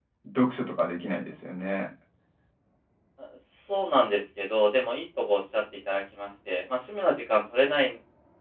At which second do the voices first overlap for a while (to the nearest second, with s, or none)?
none